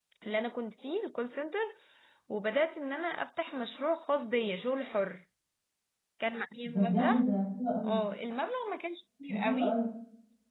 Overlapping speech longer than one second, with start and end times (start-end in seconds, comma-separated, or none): none